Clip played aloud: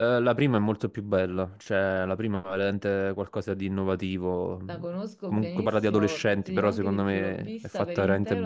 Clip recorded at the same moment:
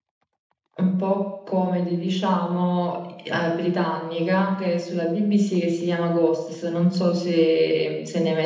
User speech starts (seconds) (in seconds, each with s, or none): 0.8 s